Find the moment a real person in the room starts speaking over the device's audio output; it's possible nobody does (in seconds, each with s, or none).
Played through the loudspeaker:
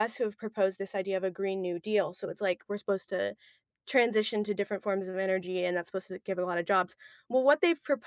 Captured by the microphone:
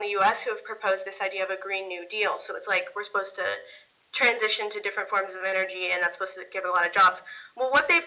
none